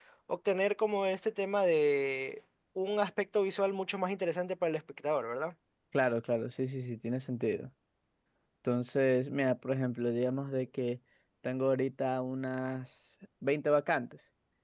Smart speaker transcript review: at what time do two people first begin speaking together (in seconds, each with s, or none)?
none